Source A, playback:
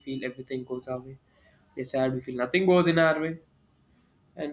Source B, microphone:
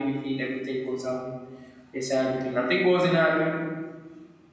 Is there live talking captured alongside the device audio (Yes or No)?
No